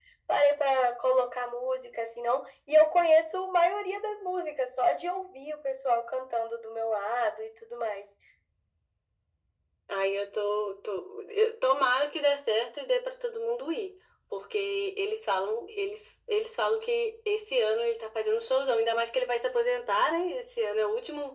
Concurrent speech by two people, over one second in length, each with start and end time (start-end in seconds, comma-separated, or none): none